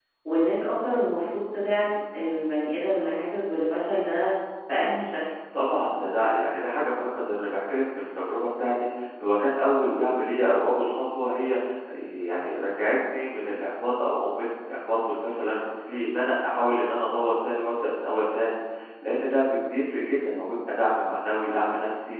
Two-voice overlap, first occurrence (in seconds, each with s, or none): none